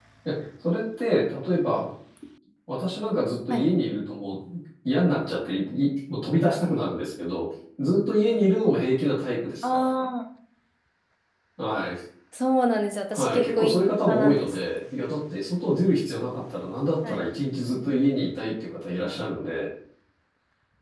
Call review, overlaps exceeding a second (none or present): present